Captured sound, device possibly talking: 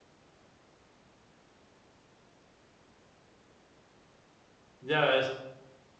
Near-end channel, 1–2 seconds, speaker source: neither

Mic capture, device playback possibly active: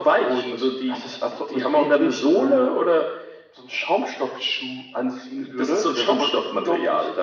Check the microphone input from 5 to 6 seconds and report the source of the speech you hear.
echo only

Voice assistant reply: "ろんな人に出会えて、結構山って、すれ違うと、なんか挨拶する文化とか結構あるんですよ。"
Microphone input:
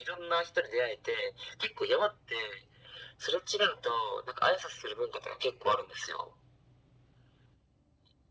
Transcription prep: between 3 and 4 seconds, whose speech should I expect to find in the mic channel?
echo only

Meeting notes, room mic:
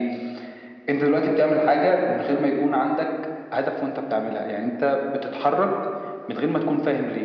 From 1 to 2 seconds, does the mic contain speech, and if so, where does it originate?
echo only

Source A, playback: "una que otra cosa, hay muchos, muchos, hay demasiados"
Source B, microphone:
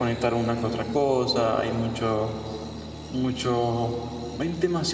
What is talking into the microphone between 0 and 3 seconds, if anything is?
echo only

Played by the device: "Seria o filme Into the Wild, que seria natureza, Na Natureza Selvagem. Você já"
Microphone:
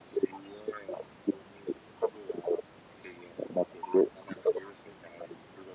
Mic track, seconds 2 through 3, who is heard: echo only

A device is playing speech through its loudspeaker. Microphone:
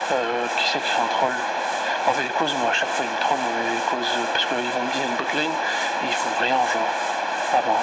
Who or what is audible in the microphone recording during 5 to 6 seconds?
echo only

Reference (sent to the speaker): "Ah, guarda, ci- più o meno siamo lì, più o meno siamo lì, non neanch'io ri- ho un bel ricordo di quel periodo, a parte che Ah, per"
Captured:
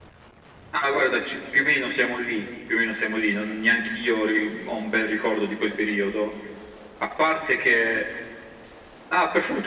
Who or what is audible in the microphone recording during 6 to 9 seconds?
echo only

